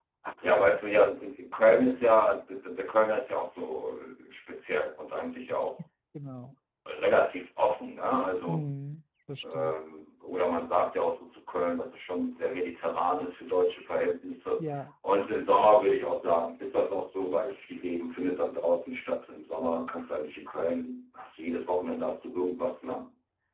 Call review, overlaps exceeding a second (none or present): none